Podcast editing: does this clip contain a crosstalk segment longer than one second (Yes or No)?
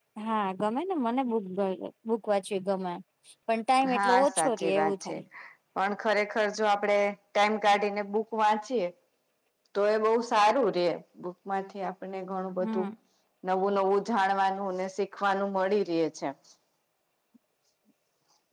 Yes